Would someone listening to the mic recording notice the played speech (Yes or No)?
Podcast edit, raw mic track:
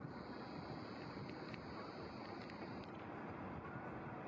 No